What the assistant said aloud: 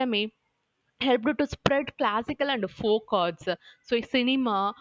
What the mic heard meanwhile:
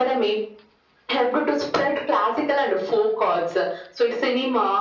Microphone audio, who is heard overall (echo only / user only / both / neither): echo only